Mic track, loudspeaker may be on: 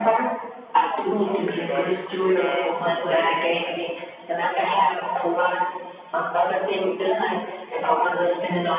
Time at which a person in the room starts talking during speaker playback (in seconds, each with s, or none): 1.2 s